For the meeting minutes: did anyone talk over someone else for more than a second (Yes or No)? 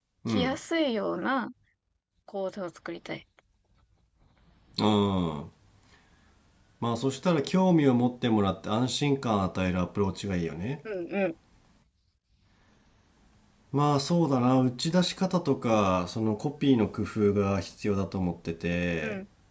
No